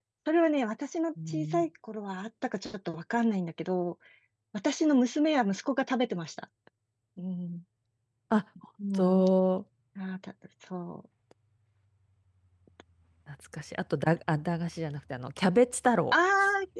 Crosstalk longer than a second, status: none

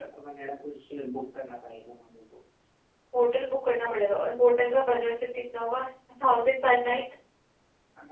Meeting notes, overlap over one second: none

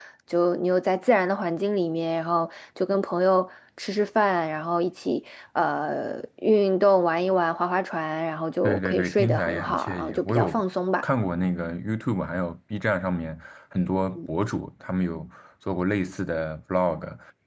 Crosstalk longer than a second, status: present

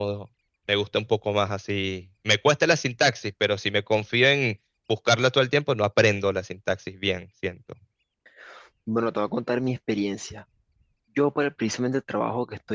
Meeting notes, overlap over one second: none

